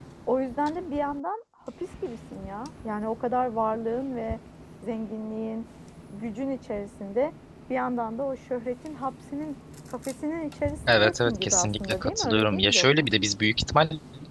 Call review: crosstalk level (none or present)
present